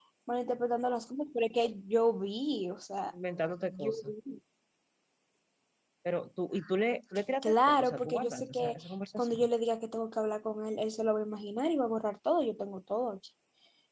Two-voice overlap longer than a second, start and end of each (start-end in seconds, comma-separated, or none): 7.4-8.8